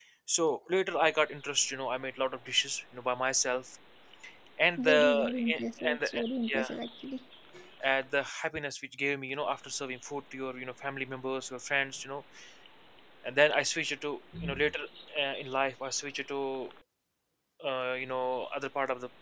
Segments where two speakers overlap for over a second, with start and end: 4.8-6.7

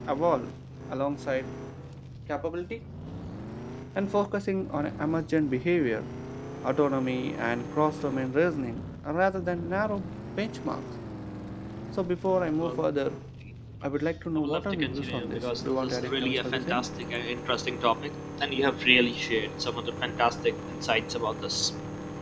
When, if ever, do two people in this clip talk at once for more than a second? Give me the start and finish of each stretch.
14.4-16.9

